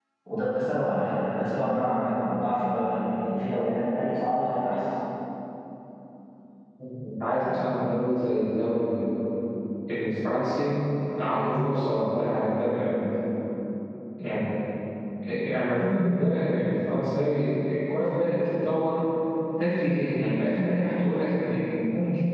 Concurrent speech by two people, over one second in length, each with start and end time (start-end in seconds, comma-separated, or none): none